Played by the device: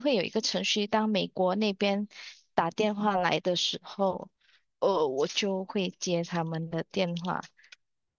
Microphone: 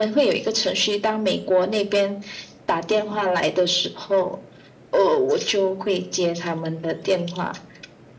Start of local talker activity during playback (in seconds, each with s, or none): none